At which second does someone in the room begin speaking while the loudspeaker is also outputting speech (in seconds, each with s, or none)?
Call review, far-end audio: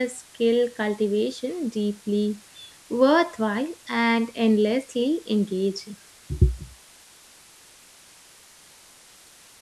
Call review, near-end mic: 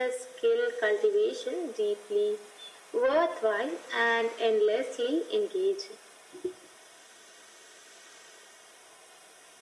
none